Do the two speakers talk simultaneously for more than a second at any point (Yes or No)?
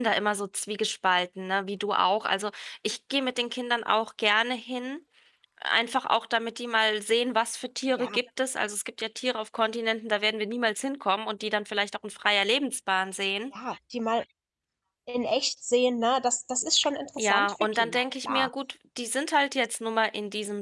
Yes